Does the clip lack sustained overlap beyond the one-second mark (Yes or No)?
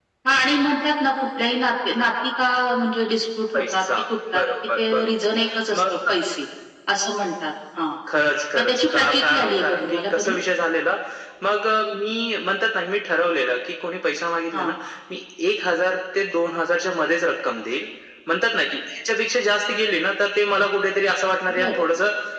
No